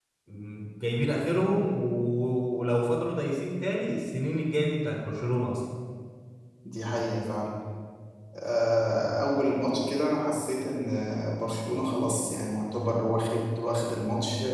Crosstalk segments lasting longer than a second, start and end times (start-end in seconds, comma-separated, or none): none